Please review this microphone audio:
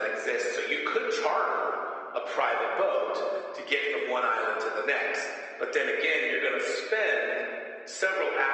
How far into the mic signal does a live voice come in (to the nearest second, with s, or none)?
none